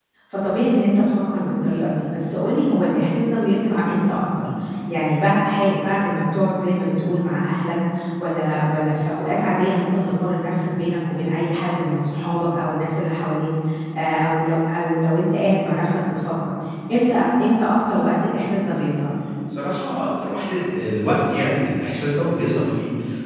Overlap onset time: none

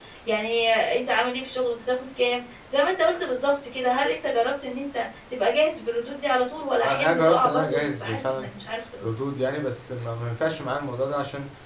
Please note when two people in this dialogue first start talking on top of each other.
6.8 s

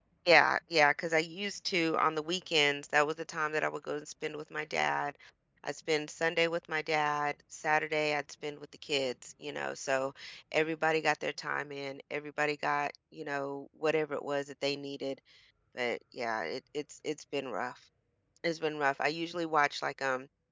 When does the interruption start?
none

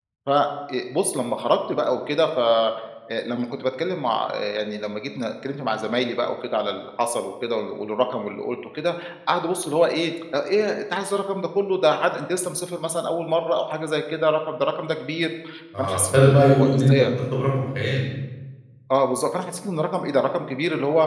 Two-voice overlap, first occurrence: 15.8 s

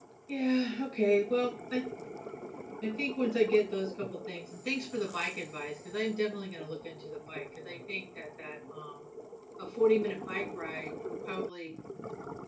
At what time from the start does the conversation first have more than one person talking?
none

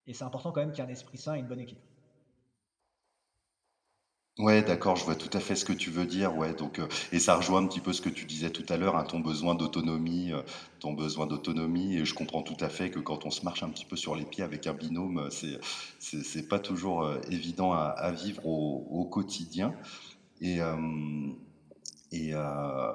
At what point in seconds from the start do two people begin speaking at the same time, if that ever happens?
none

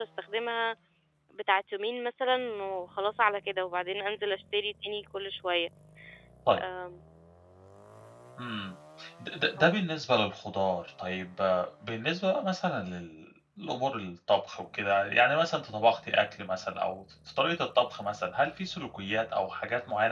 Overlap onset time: none

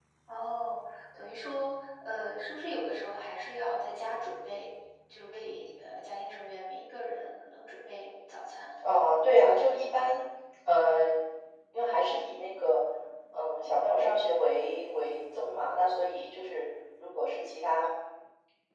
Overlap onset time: none

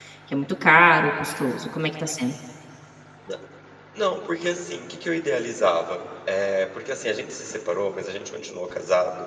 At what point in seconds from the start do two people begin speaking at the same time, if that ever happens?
none

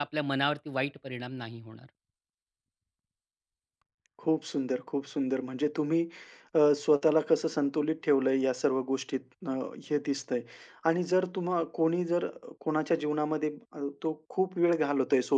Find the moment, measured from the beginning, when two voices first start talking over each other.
none

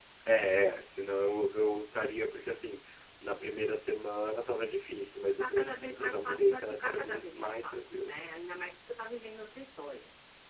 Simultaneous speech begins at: 5.4 s

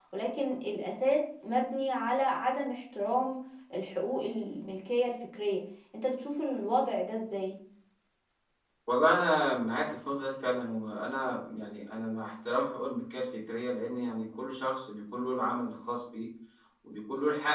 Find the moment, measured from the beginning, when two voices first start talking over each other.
none

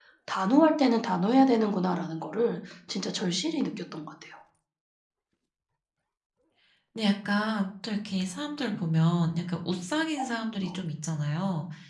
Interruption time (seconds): none

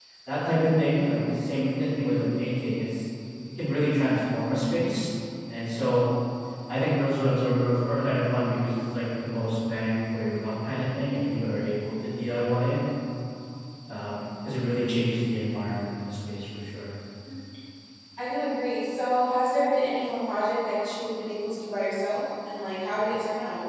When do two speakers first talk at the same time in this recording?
none

